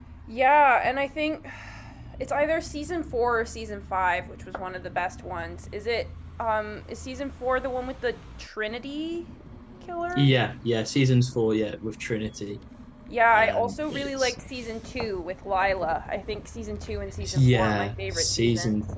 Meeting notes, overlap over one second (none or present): present